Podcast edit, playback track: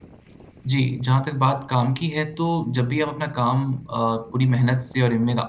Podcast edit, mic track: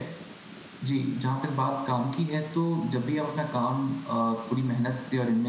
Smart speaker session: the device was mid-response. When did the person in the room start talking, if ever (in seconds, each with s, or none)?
none